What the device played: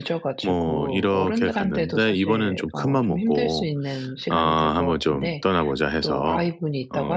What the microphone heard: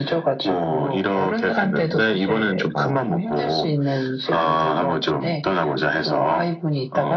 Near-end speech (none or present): none